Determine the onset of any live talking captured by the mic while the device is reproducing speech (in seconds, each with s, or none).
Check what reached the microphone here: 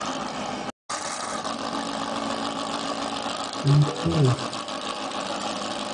3.6 s